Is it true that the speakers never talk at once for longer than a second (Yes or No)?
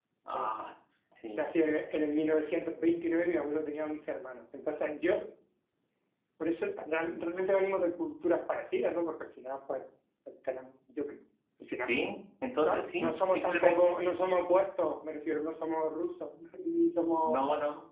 No